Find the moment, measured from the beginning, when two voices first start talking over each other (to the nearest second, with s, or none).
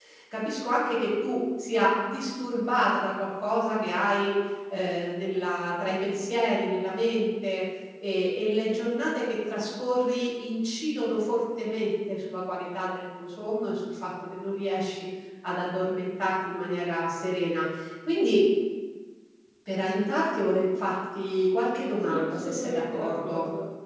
22 s